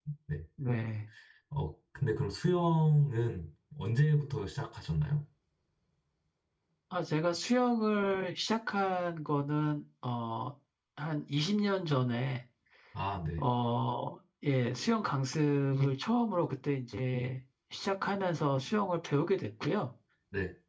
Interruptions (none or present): none